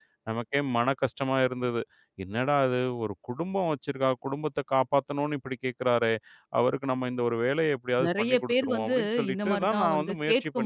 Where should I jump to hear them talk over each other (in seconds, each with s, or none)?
8.0 s